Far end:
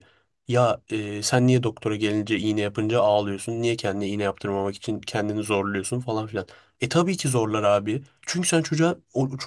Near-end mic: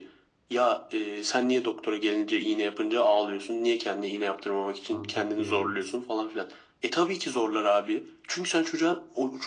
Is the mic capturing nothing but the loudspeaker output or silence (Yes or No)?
No